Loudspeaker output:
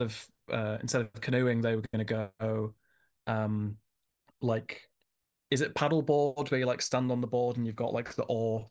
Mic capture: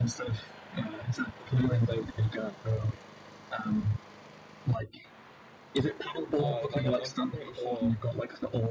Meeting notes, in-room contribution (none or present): present